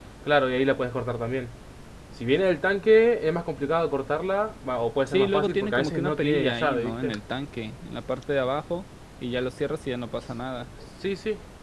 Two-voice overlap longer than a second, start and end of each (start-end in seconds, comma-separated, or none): 5.1-7.1